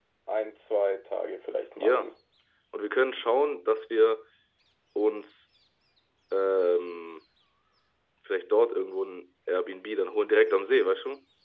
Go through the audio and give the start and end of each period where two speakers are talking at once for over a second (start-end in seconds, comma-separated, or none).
none